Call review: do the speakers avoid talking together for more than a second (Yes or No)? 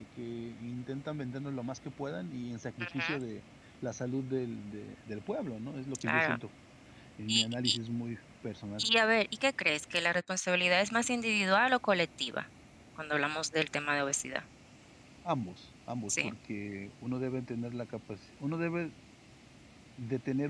Yes